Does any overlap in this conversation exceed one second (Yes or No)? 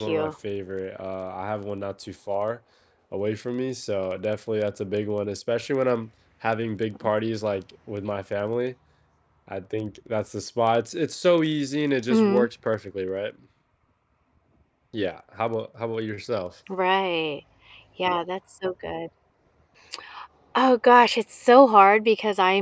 No